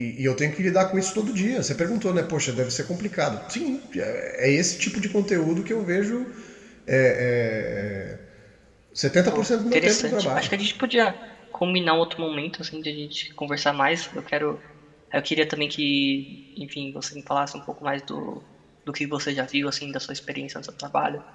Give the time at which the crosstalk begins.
9.3 s

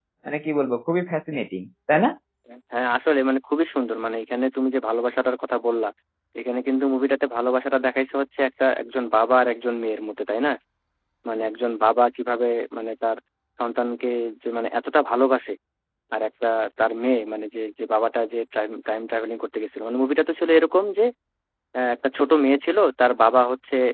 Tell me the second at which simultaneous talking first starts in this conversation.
none

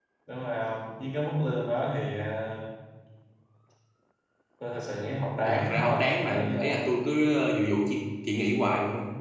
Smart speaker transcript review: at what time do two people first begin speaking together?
5.4 s

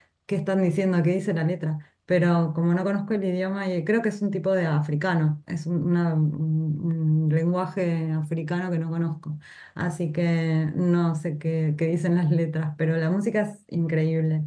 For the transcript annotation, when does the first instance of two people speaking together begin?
none

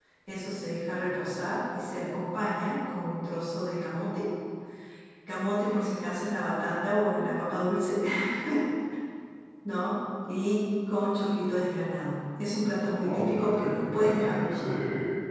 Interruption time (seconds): 13.0 s

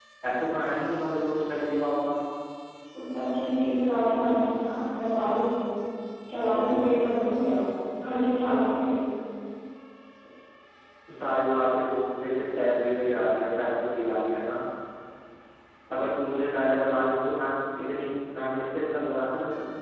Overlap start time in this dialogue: none

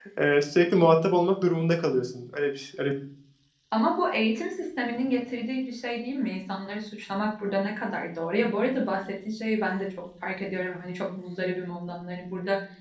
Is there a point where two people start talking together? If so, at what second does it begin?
none

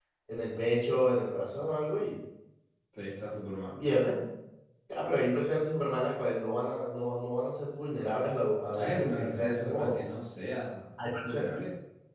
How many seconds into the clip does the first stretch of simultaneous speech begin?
8.8 s

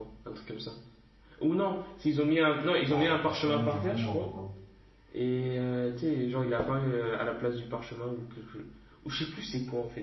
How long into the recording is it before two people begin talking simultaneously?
2.9 s

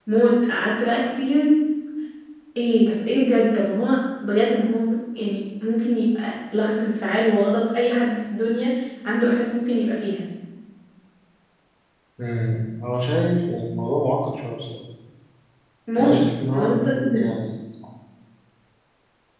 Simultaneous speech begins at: 16.0 s

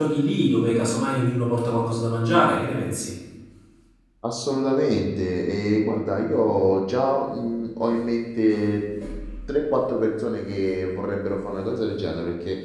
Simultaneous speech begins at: none

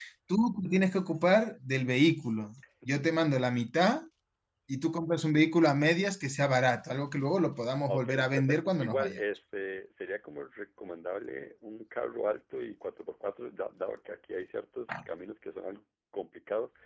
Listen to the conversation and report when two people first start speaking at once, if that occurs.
7.9 s

